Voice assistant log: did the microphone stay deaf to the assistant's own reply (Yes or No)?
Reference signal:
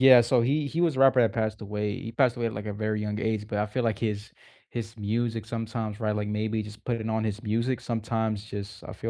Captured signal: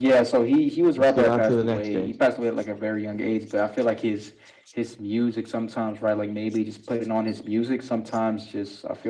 No